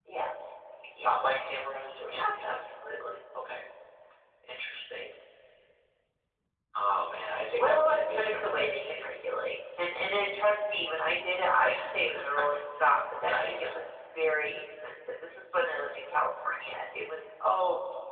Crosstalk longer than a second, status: present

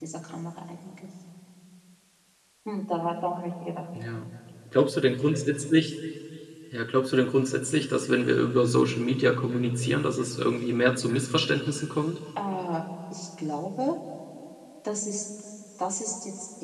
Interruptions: none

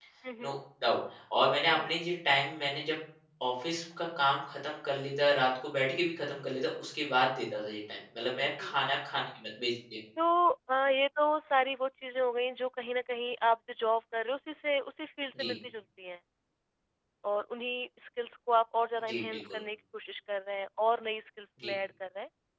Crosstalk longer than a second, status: none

